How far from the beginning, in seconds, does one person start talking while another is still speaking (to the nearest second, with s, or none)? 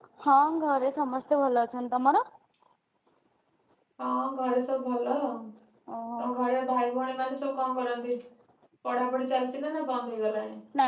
none